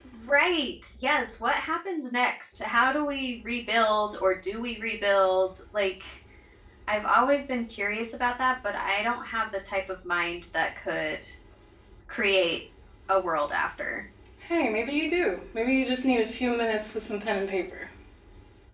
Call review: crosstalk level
none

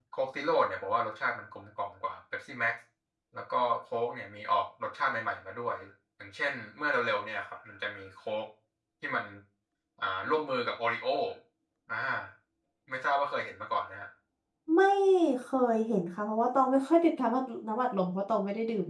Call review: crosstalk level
none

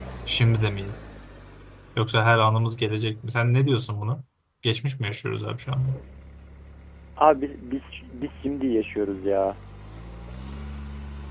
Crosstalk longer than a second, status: none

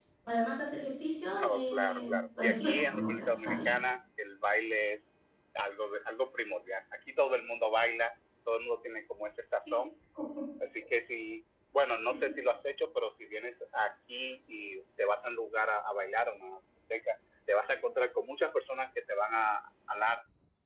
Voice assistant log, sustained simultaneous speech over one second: present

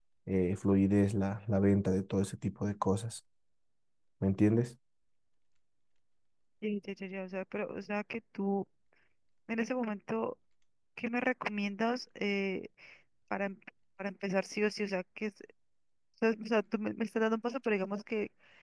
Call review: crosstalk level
none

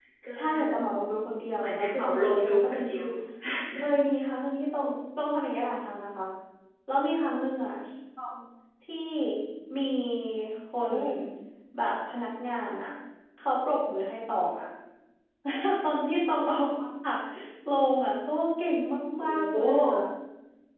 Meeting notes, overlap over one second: present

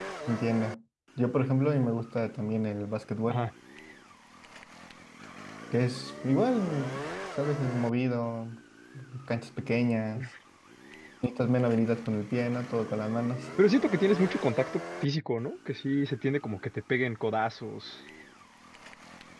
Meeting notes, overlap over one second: none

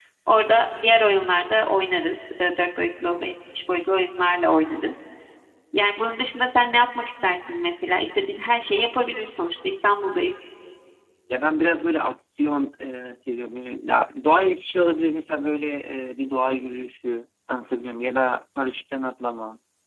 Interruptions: none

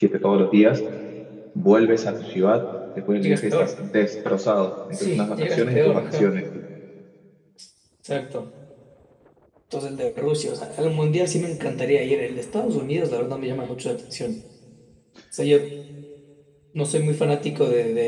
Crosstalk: present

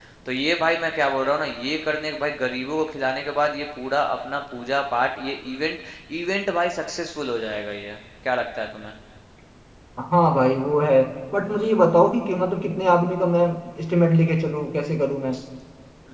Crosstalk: none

